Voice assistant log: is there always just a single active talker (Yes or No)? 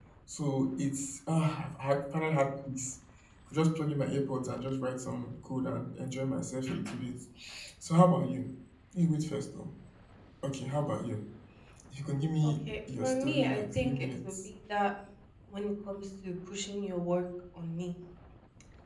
No